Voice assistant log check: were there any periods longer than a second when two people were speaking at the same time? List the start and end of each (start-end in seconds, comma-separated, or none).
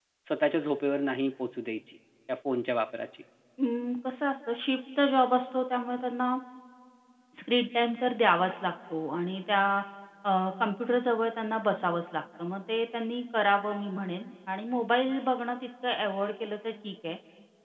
none